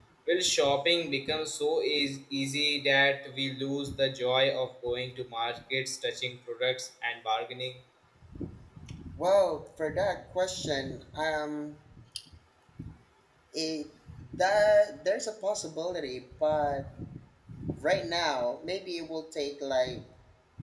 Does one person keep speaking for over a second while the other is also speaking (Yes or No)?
No